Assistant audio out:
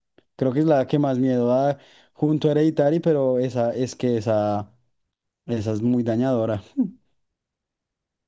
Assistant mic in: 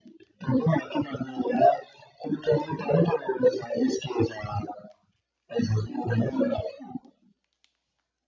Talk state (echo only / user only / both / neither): echo only